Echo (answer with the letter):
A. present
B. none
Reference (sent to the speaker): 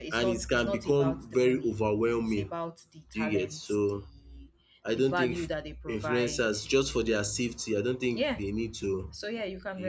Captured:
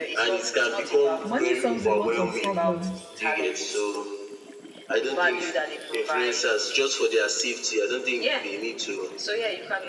A